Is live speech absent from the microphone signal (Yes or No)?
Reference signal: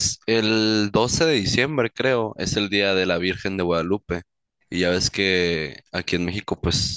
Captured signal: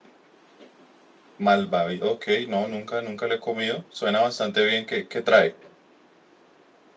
No